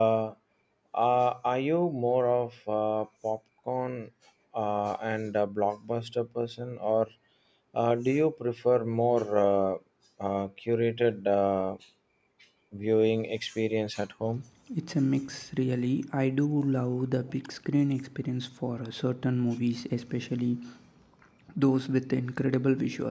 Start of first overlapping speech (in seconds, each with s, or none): none